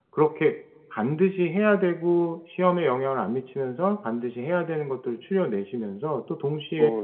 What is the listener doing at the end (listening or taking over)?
listening